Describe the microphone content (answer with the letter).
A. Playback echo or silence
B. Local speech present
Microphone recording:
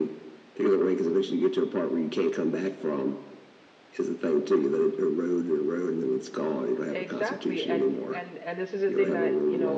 B